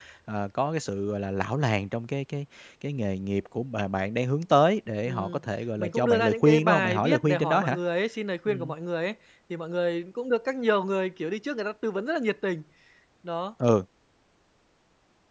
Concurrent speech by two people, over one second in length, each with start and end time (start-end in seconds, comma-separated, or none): 5.8-7.8